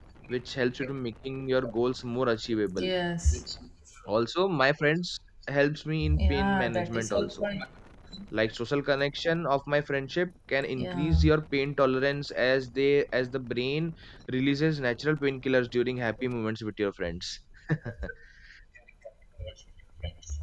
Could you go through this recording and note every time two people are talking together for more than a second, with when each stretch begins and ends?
6.2-7.4

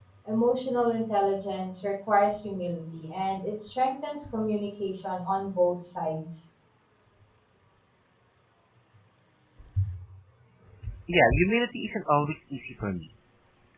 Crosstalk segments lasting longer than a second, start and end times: none

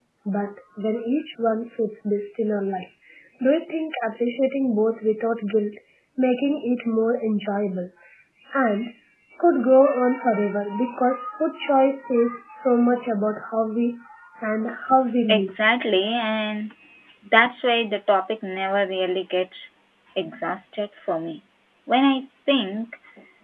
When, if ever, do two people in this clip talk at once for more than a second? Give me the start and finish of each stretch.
none

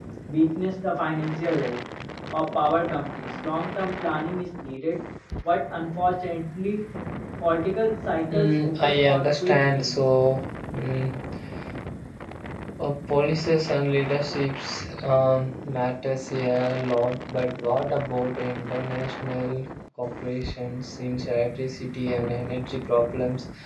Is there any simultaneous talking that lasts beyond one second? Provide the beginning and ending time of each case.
8.3-10.2

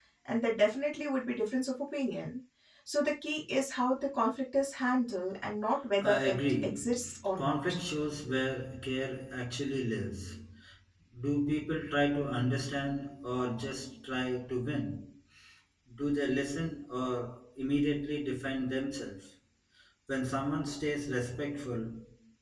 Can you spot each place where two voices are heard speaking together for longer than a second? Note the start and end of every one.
6.0-7.8

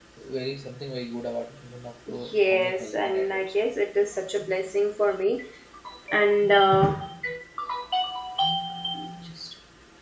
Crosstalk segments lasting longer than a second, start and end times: 2.3-3.6

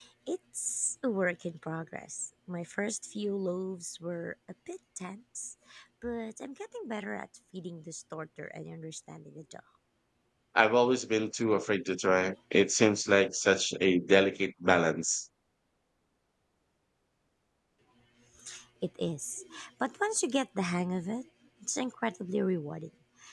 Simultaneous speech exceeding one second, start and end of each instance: none

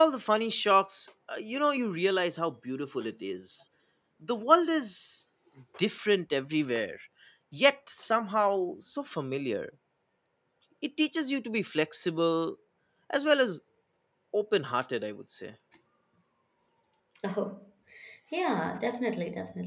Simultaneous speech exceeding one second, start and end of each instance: none

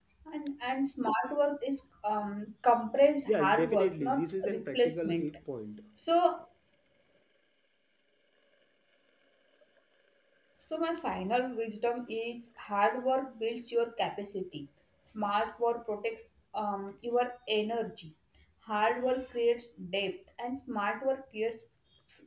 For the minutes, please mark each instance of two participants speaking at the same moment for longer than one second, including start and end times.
3.3-5.4

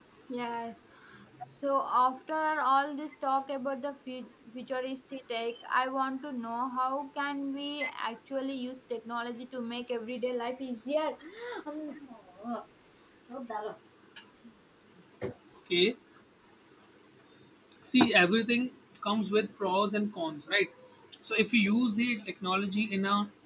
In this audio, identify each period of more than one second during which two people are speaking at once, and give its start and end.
none

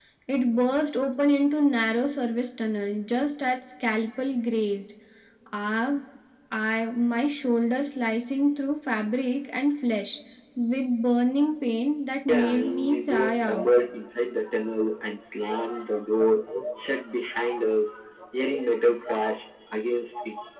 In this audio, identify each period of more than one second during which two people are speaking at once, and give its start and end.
12.3-13.6

